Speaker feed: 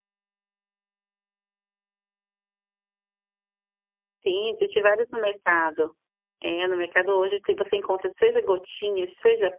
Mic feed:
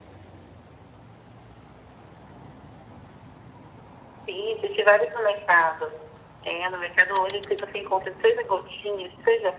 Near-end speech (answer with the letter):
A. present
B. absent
B